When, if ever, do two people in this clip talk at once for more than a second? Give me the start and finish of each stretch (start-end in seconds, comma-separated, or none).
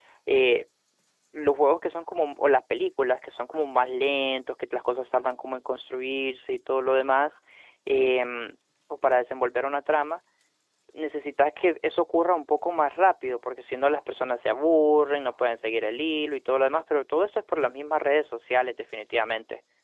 none